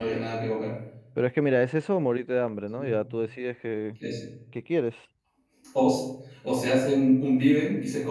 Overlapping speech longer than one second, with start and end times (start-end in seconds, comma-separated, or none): none